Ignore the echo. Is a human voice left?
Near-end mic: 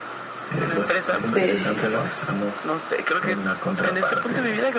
Yes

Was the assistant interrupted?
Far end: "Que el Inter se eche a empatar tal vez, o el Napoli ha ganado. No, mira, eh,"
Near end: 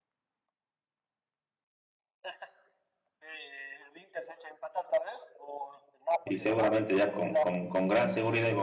Yes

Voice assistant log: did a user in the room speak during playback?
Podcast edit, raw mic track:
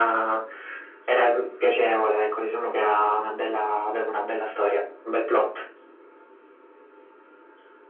No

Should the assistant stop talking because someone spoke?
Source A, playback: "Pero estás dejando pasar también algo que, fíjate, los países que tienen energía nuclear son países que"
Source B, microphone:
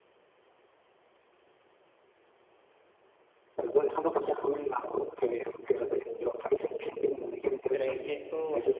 Yes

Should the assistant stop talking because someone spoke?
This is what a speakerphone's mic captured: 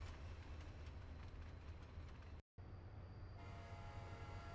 No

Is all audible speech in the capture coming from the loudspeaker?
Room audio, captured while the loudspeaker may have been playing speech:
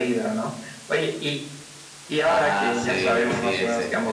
No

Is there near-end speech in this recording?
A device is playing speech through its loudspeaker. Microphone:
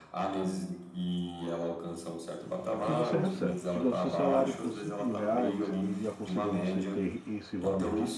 Yes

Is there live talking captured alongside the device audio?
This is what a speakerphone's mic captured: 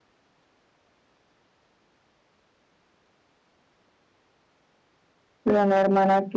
Yes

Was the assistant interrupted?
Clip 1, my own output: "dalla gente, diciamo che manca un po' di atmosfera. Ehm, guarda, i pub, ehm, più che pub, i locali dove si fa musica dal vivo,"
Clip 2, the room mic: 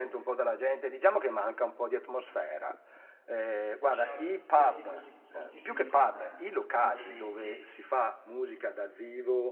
Yes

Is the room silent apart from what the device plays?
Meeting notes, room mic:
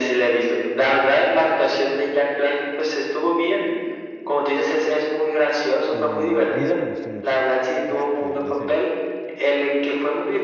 No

